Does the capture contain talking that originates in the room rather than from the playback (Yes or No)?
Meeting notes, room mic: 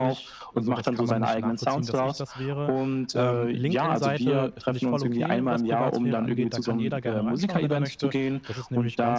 Yes